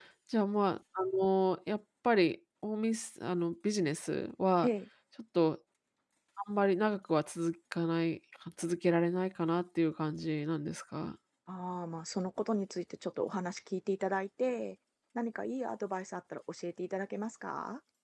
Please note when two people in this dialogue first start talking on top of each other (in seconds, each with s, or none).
none